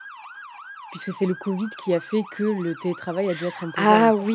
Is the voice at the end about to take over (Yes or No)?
Yes